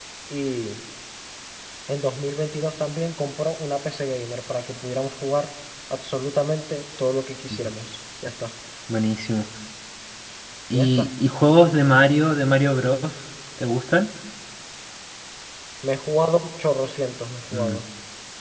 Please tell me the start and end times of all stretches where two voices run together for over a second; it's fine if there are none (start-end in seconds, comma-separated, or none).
none